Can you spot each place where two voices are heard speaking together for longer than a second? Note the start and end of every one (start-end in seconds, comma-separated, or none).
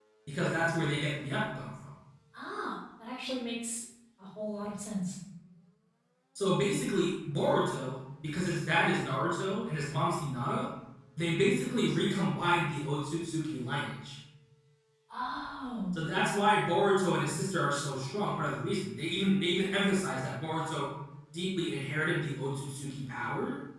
none